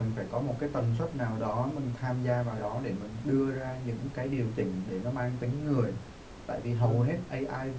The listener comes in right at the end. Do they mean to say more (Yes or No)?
No